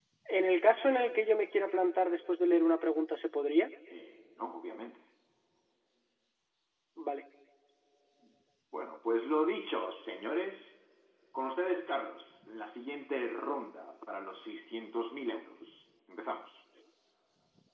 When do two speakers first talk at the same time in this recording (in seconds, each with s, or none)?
none